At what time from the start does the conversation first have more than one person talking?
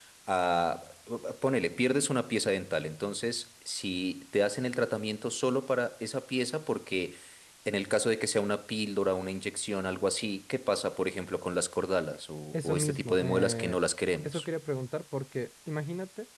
12.5 s

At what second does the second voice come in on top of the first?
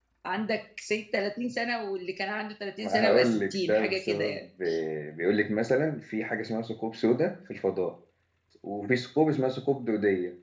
2.8 s

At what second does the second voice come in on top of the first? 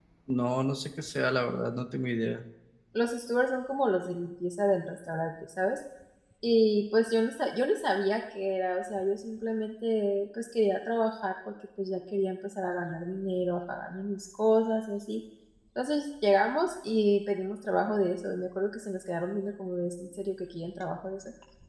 none

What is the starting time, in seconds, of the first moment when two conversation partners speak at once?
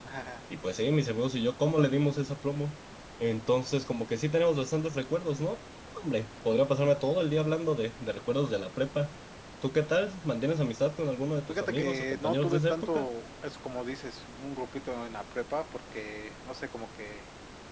11.5 s

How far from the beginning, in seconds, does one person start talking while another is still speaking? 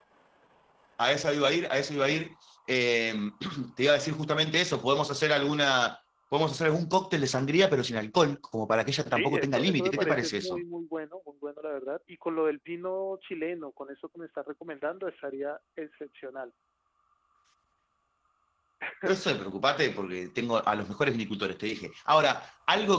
9.1 s

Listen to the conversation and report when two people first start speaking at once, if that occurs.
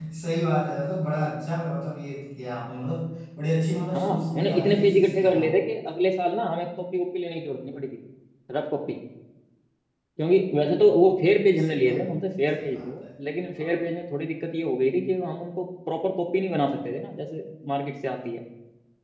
3.9 s

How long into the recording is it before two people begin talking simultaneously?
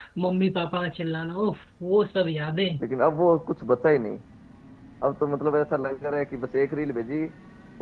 none

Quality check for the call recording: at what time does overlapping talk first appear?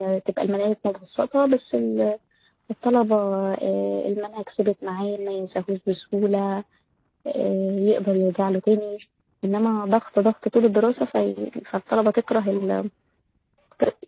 none

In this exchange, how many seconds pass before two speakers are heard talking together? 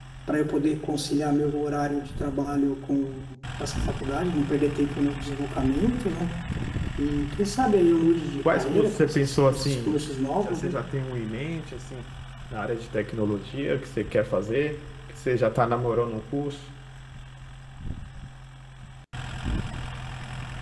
8.5 s

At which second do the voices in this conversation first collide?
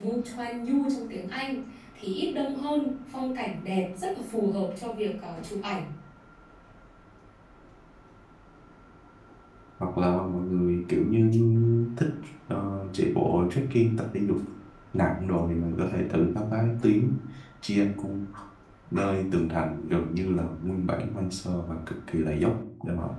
none

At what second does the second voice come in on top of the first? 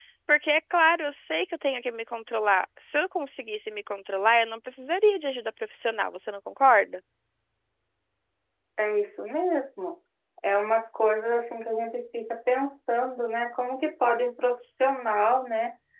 none

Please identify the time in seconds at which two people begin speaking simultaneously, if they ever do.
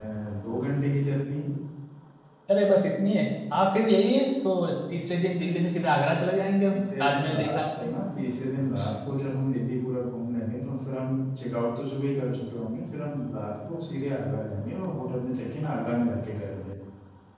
6.7 s

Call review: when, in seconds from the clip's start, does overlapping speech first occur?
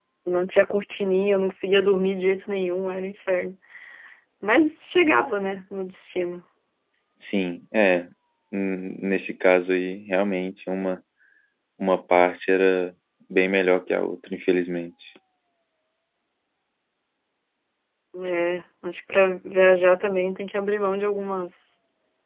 none

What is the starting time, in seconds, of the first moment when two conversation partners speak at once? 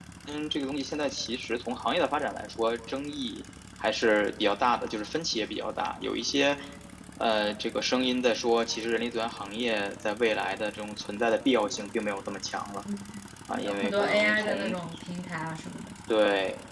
13.5 s

